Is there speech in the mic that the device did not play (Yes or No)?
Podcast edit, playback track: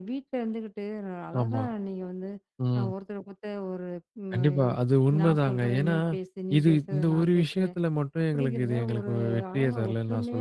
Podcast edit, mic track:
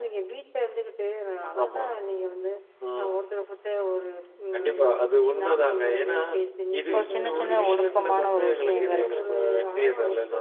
Yes